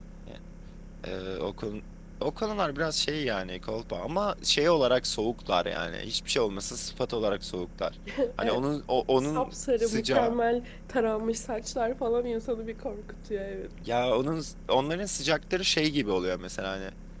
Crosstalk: present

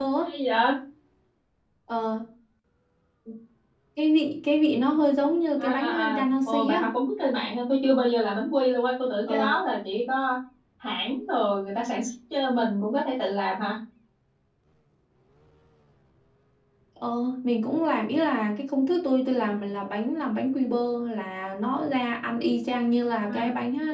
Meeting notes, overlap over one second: present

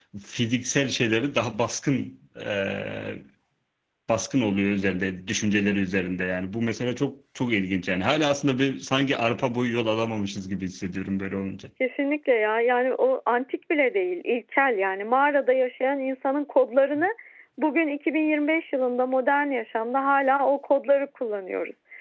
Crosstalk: none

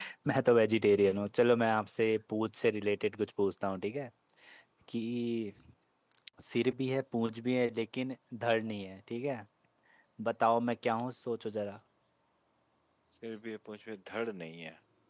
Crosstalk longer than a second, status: none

